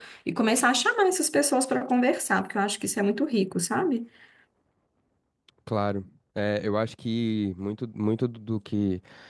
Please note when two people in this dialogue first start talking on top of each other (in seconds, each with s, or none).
none